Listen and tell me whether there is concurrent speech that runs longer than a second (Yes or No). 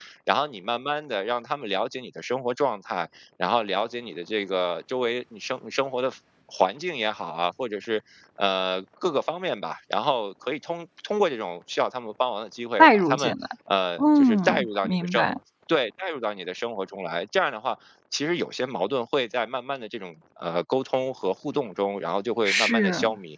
Yes